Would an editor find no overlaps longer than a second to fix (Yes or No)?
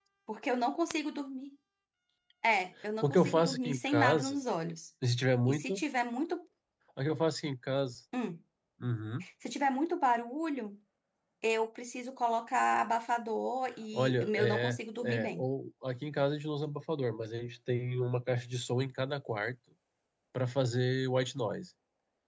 No